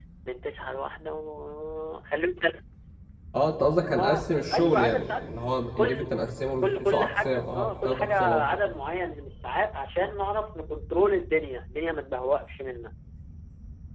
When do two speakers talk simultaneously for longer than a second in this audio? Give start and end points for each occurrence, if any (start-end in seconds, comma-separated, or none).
4.0-5.3, 6.6-8.5